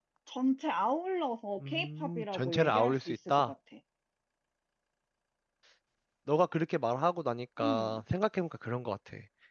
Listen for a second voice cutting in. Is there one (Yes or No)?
Yes